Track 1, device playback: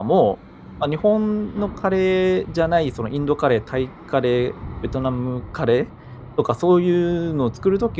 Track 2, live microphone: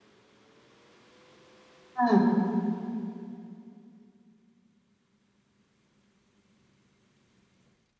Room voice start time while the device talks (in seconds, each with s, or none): 2.0 s